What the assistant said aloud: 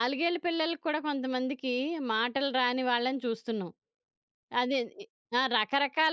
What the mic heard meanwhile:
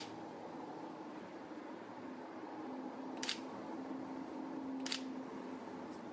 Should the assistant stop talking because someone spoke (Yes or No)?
No